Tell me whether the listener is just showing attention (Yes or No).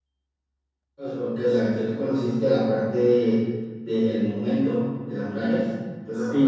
No